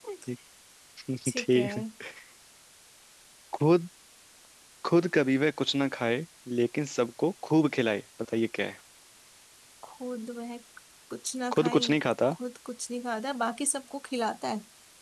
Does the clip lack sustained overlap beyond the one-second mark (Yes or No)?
Yes